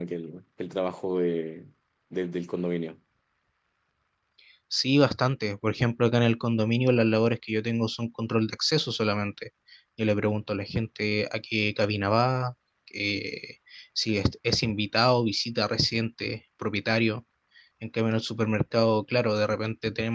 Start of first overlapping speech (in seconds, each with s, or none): none